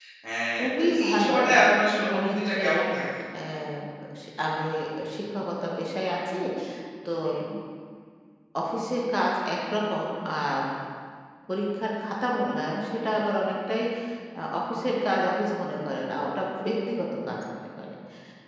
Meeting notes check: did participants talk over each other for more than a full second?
Yes, from 0.6 s

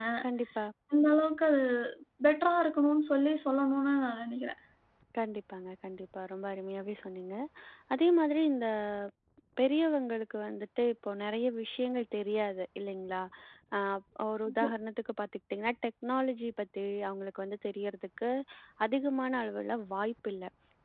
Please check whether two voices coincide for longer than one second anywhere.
No

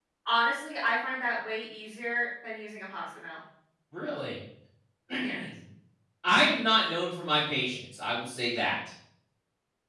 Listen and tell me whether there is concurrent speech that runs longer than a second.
No

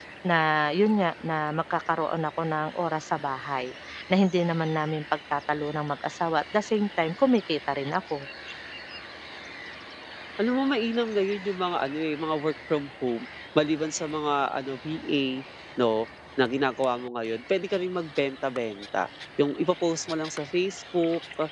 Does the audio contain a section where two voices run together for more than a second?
No

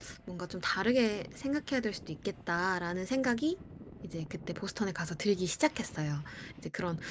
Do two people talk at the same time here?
No

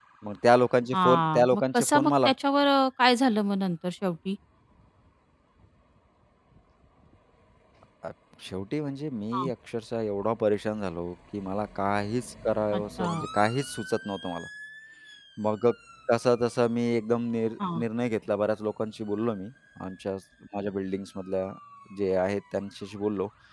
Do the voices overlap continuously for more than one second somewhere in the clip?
Yes, from 0.9 s

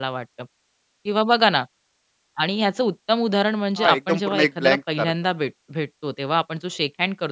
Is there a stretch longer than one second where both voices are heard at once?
Yes, from 3.8 s

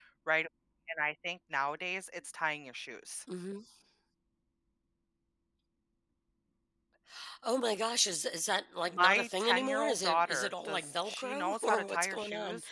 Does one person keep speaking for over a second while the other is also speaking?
Yes, from 8.9 s

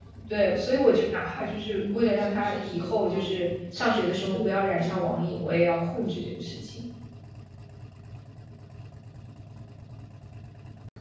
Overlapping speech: Yes, from 1.7 s

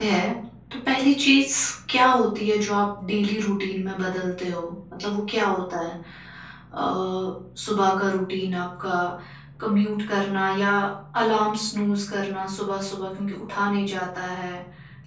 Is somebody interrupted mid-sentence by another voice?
No

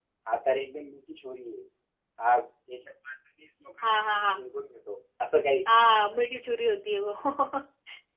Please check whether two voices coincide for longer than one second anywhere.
No

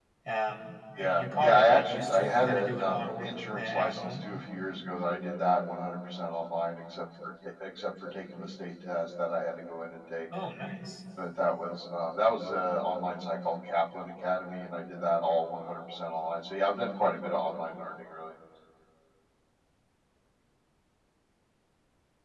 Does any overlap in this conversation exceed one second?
Yes, from 1.0 s

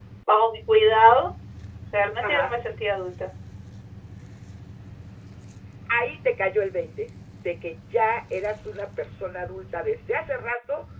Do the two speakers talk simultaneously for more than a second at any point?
No

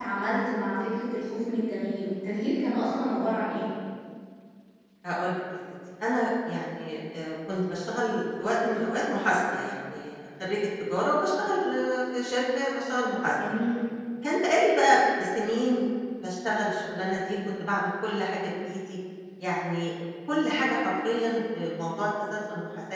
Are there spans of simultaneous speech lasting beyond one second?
No

